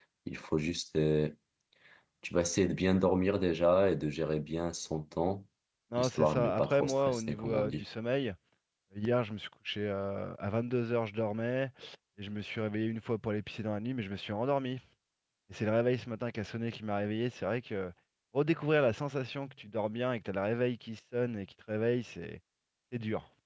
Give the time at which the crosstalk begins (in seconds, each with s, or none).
6.0 s